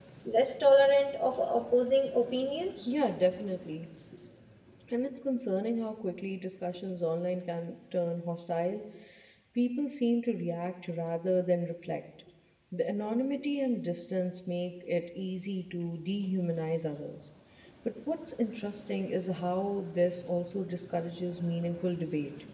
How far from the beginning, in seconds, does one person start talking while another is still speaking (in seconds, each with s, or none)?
none